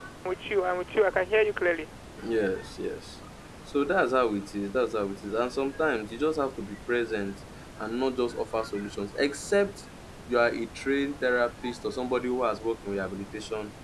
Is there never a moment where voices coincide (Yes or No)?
Yes